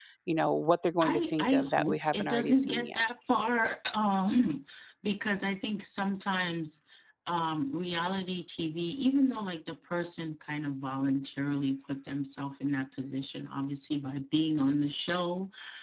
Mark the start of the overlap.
1.0 s

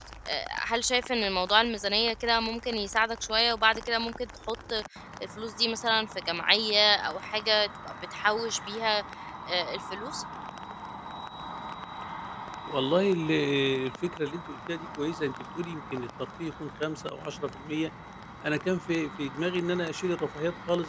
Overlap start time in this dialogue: none

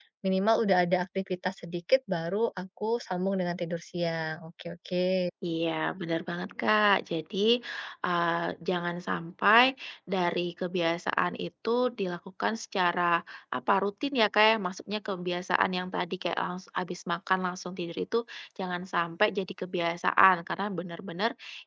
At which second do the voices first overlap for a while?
none

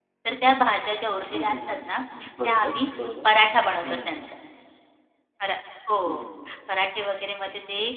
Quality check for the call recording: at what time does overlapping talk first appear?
1.3 s

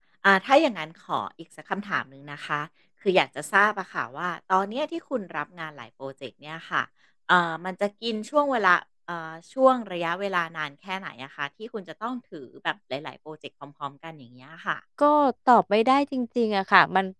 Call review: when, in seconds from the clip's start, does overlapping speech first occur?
none

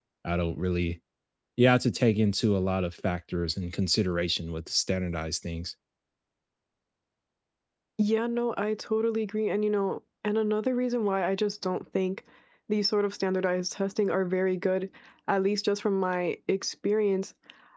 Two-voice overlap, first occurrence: none

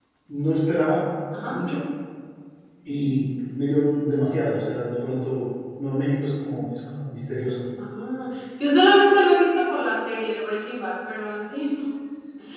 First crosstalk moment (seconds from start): none

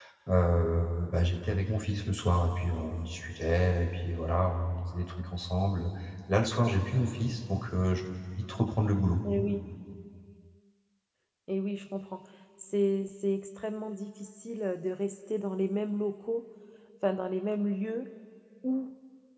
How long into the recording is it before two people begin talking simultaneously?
none

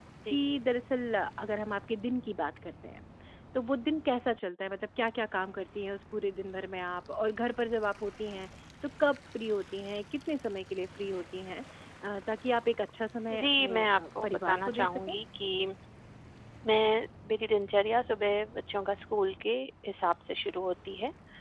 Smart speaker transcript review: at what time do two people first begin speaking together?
13.3 s

